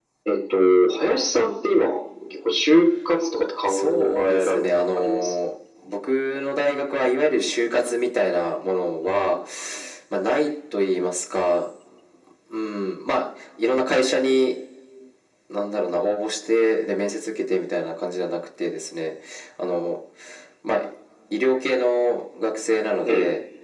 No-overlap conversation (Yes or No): No